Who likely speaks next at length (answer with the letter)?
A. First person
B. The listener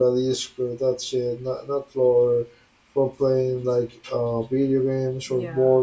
B